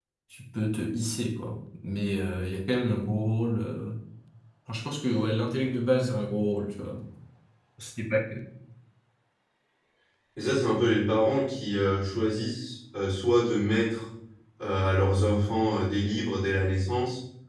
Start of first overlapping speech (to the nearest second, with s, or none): none